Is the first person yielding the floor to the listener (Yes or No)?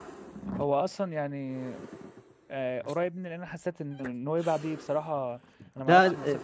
No